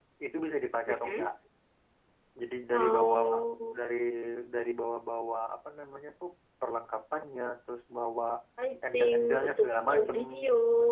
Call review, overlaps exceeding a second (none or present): present